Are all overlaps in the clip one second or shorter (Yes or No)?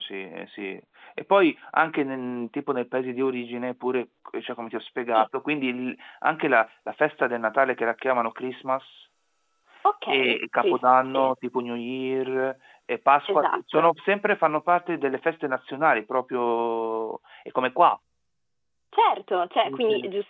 No